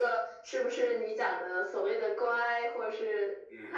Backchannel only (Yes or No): No